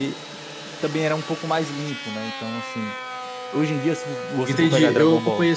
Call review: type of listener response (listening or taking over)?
taking over